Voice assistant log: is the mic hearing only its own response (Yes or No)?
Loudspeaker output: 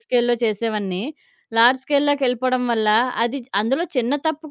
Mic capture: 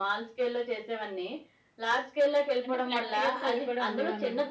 No